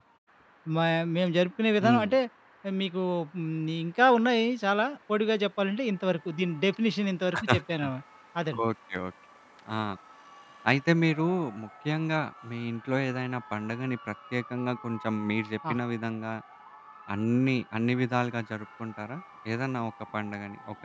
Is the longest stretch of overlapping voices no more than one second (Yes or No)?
Yes